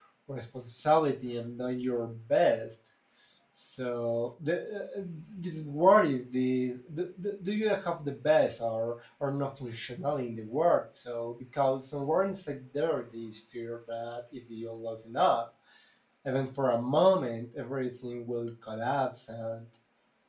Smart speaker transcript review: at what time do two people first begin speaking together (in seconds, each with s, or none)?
none